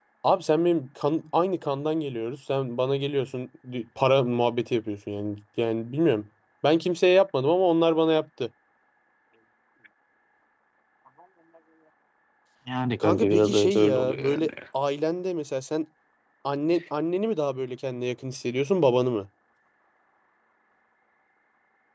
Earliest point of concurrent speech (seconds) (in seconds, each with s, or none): 13.0 s